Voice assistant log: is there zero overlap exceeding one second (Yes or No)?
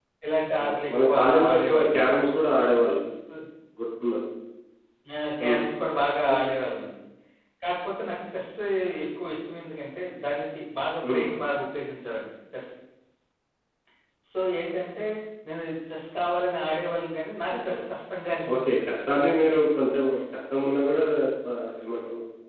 No